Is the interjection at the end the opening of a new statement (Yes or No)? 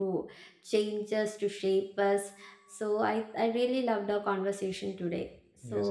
Yes